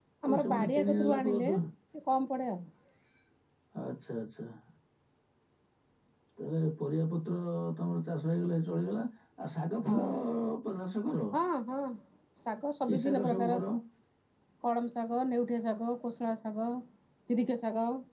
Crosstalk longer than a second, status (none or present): present